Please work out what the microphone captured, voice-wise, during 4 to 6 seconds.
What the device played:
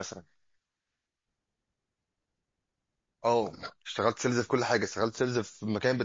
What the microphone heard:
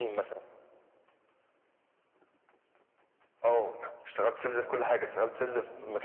both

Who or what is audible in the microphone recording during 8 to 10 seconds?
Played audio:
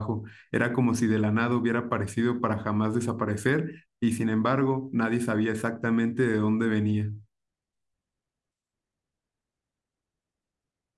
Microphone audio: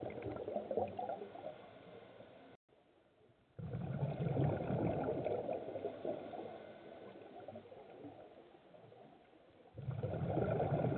neither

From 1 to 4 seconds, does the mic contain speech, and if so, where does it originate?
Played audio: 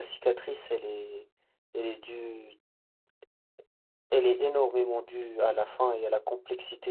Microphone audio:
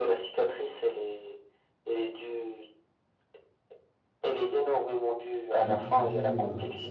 echo only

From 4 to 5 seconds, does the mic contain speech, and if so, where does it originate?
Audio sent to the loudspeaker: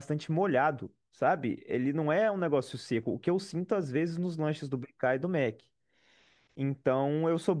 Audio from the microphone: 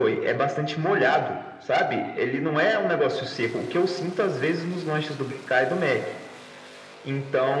echo only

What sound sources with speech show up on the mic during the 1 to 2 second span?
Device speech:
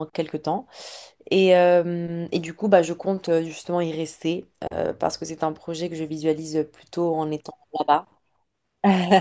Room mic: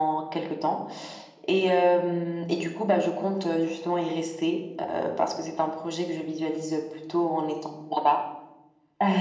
echo only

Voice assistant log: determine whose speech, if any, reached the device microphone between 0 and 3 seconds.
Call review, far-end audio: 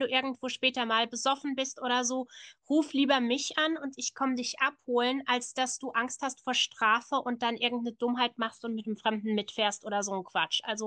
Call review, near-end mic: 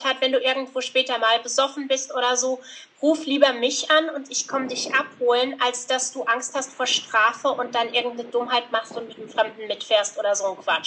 echo only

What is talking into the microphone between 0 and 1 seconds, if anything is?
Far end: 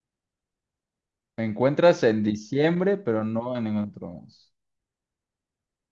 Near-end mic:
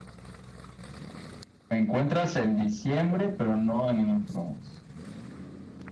neither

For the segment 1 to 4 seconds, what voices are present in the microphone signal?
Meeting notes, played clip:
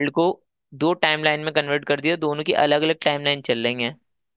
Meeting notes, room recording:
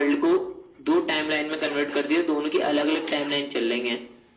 echo only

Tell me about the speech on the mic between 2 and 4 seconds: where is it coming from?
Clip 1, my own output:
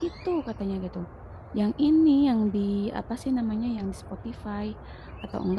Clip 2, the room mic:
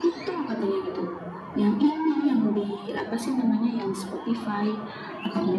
echo only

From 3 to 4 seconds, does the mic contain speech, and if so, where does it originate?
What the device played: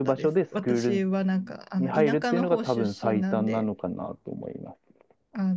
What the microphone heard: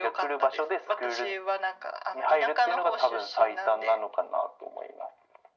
echo only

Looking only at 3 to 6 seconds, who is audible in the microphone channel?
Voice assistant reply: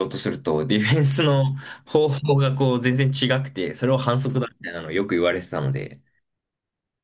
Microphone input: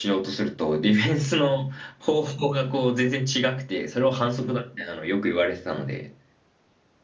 echo only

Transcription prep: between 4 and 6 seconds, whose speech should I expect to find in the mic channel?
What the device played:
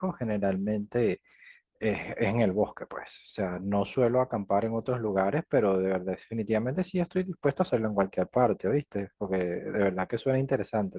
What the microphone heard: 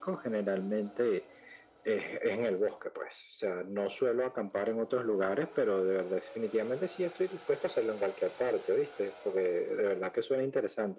echo only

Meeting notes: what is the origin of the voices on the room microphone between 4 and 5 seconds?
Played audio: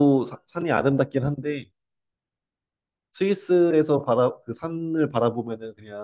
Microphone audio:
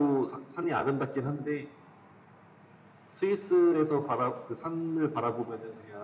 echo only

